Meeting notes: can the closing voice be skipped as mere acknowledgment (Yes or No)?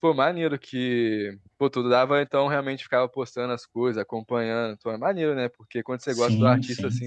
Yes